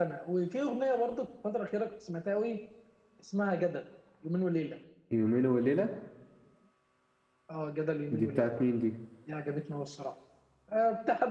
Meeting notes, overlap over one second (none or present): none